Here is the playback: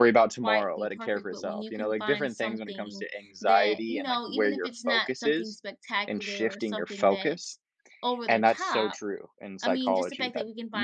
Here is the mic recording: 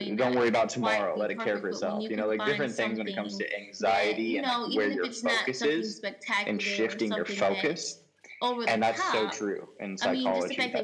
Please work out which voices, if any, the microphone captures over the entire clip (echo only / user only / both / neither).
echo only